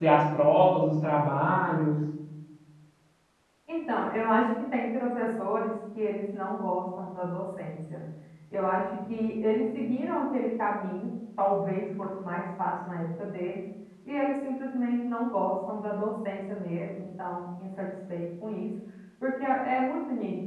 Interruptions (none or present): none